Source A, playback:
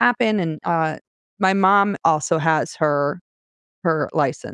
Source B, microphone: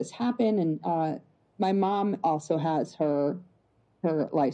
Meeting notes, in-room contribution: none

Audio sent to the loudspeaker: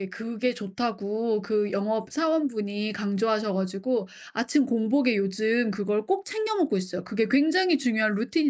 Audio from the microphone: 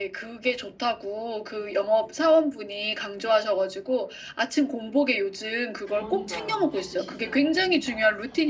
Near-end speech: present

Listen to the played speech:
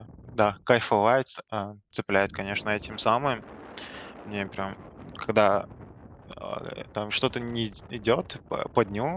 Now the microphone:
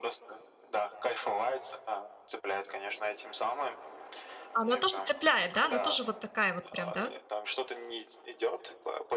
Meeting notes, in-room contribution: present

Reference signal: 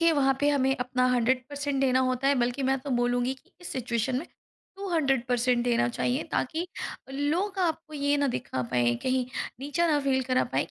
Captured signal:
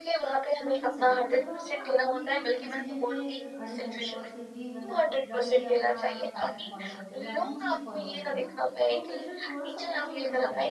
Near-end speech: present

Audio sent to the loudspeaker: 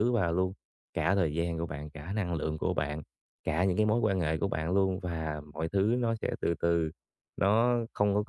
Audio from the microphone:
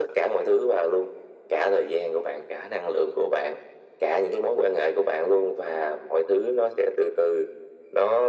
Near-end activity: none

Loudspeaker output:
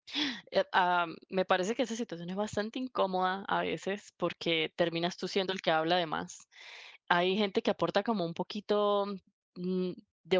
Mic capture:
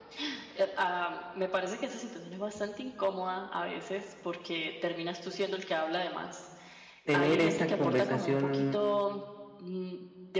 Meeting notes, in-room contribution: present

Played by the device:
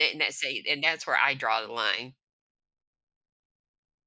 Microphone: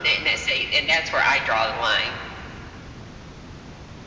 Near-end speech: none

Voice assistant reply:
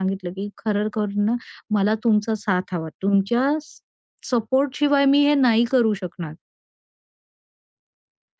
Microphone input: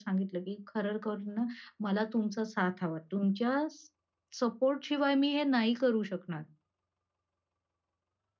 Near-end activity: none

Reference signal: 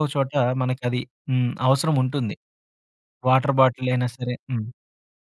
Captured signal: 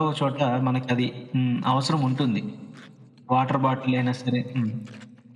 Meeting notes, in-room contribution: none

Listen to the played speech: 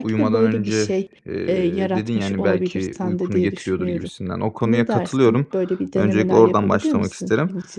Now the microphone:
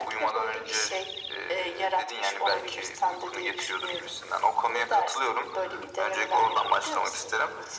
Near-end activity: none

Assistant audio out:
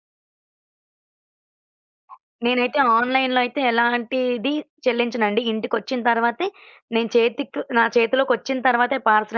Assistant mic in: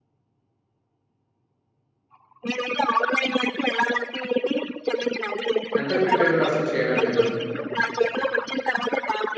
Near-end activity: present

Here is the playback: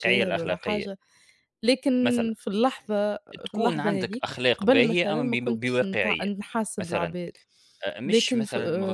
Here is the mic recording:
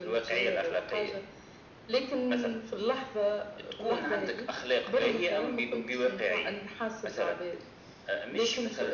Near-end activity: none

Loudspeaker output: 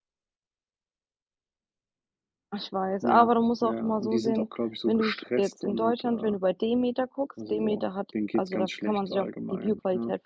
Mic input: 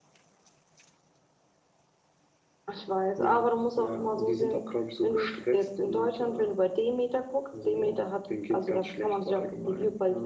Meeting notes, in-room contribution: none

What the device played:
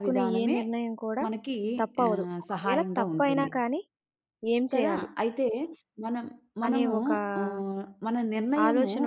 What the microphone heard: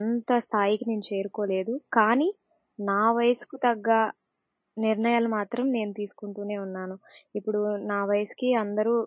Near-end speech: present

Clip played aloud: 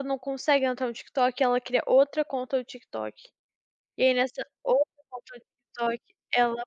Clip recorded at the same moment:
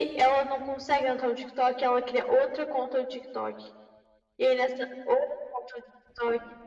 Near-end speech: none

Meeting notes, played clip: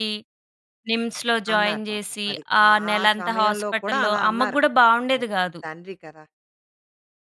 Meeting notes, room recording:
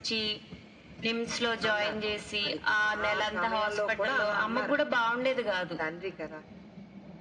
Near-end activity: none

